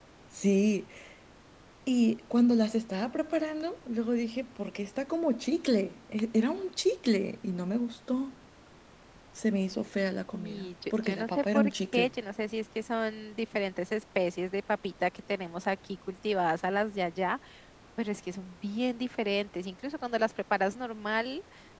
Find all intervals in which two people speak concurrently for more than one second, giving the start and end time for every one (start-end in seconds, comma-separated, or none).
10.3-12.1